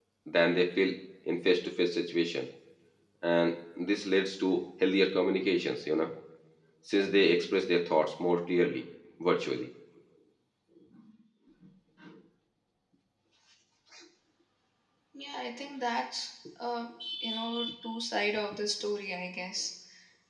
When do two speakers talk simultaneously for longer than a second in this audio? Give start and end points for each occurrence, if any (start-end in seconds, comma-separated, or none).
none